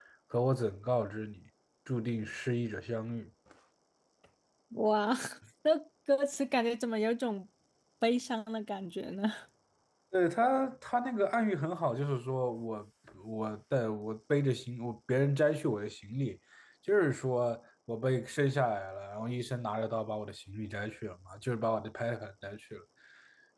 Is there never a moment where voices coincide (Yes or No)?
Yes